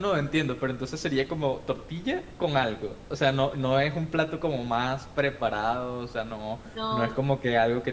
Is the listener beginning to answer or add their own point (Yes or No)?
No